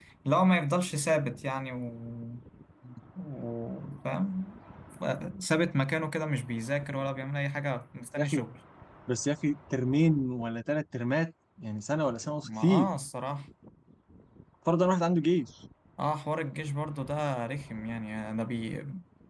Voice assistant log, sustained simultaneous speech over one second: none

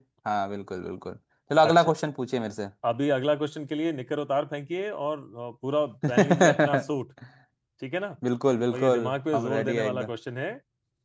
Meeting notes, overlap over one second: present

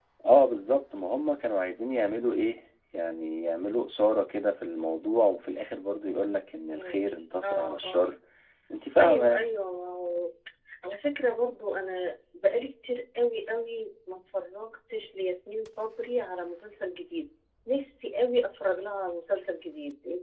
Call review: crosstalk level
present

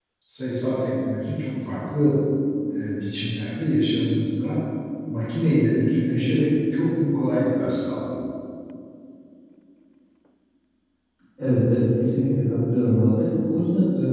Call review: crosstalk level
none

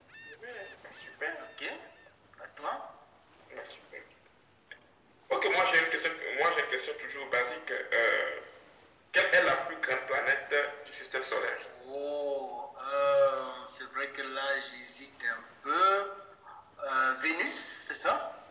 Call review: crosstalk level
none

